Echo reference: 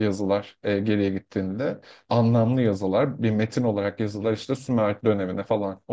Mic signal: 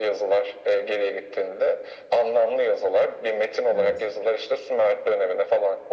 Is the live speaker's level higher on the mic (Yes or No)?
No